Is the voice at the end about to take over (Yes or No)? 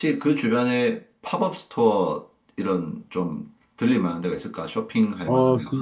Yes